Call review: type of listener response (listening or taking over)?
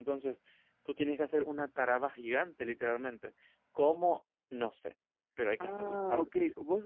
taking over